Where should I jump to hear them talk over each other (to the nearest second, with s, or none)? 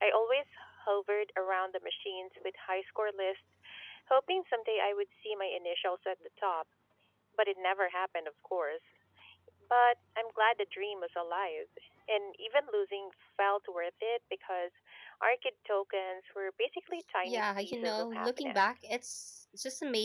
17 s